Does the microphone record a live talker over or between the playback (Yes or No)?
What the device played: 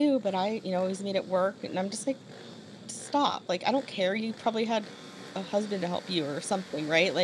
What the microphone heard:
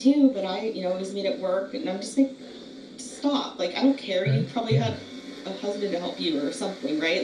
Yes